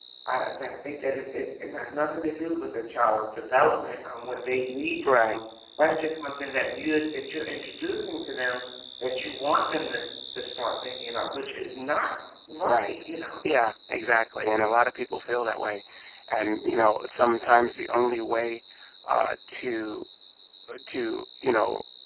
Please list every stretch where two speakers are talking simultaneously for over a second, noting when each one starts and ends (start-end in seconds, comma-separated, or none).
none